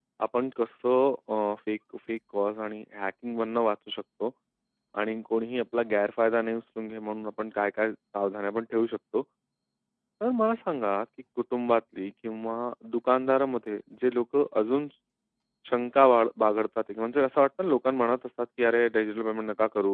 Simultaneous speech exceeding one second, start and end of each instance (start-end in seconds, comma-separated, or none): none